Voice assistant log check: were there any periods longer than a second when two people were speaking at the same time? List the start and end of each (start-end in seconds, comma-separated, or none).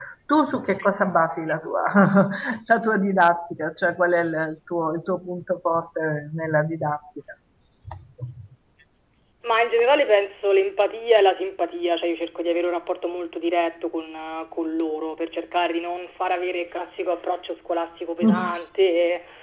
none